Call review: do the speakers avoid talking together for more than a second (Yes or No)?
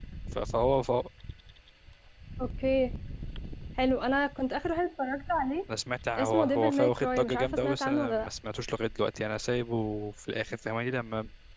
No